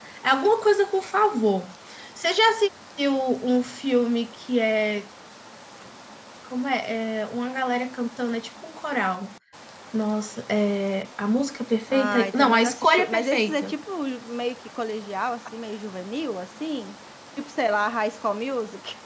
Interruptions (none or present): present